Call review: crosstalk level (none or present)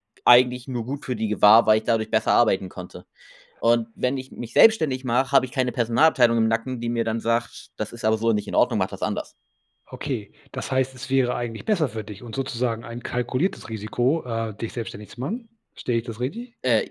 none